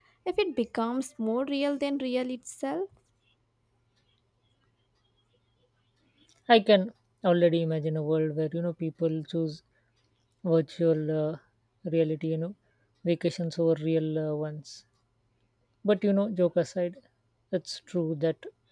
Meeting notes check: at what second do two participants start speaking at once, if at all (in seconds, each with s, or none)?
none